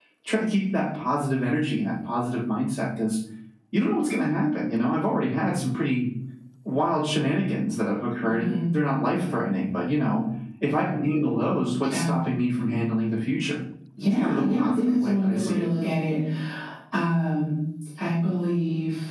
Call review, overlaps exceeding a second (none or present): present